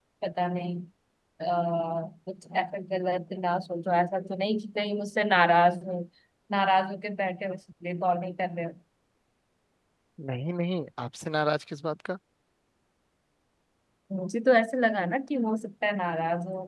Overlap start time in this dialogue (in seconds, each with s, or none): none